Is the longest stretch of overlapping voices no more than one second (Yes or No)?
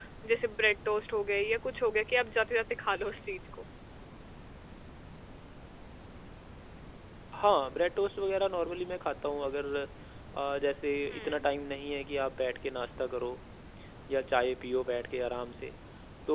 Yes